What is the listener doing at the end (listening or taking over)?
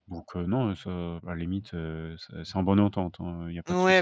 taking over